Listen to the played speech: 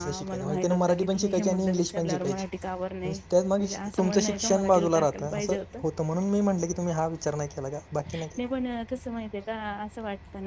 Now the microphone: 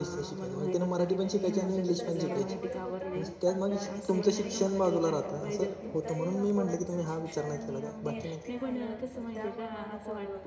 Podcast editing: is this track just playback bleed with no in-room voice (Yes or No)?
No